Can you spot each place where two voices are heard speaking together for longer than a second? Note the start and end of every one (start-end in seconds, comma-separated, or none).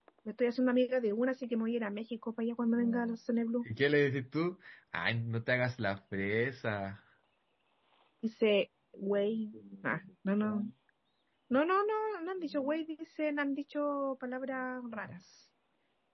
none